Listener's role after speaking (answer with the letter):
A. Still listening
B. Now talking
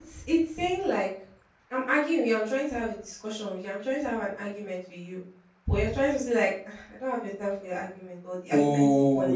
B